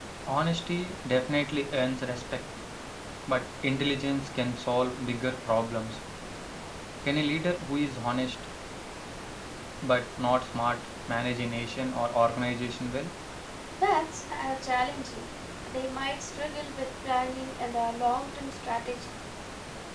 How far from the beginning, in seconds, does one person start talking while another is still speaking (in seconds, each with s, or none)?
none